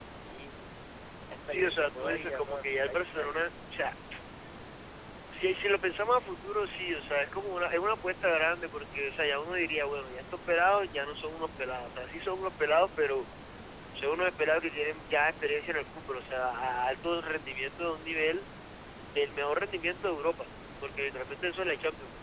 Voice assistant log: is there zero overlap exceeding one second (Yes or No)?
No